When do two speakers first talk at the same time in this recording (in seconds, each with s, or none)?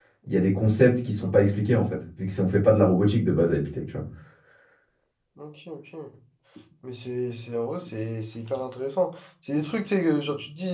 none